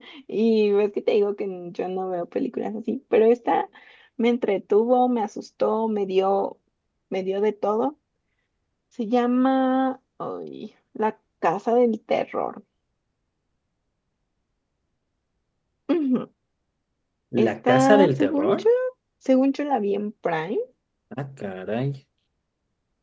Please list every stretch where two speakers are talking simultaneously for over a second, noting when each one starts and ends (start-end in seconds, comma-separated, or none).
17.4-18.6